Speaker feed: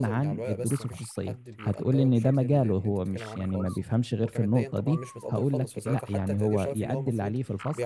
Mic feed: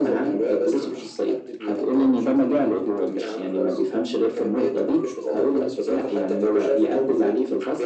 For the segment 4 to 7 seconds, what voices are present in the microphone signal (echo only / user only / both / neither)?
echo only